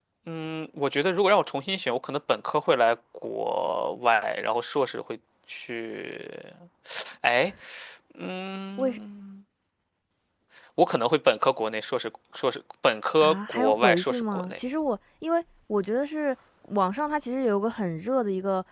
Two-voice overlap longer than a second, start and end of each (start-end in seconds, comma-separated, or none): 13.2-14.6